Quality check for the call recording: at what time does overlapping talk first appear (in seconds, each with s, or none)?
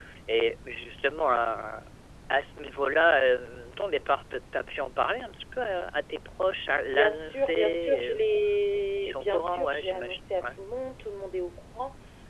6.8 s